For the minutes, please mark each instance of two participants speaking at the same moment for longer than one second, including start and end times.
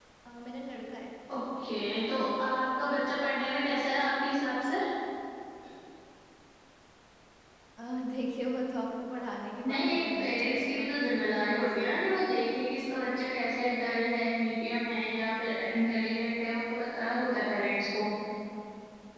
9.6-10.9

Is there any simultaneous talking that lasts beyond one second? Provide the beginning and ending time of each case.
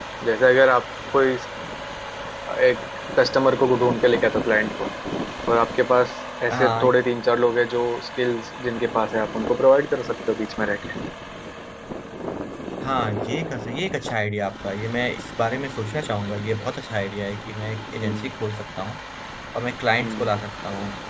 none

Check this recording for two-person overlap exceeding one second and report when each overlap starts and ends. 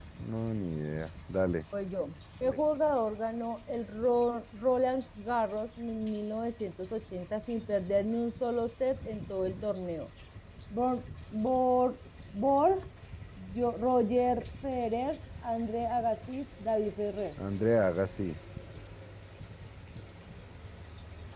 none

